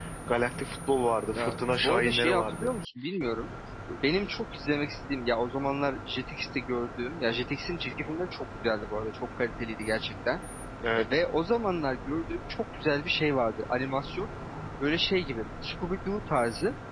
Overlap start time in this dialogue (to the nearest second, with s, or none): 1 s